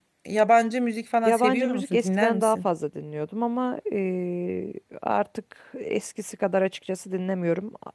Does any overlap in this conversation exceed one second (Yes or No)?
Yes